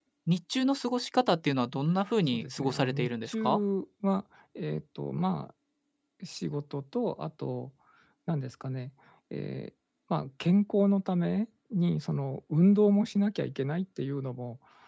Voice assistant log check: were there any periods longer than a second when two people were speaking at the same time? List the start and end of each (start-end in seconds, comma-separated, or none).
2.3-3.6